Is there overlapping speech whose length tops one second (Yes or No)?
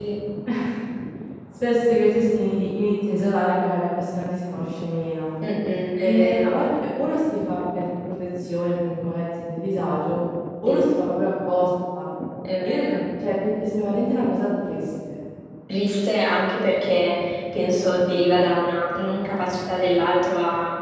No